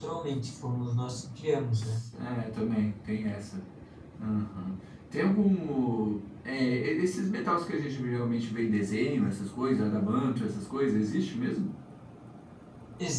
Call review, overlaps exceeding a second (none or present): none